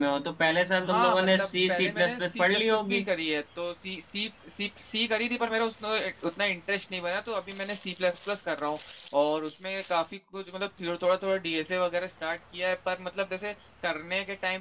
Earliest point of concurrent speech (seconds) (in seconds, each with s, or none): 0.8 s